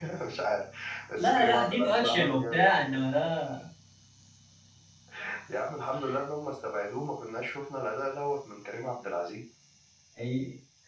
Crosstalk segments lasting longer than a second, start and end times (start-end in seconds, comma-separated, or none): 1.2-2.6